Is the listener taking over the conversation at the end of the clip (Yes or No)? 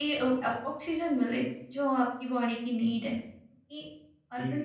Yes